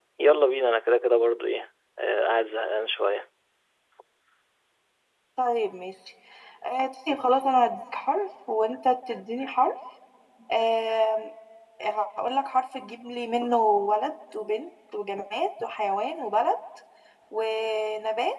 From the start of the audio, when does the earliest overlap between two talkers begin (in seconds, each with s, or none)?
none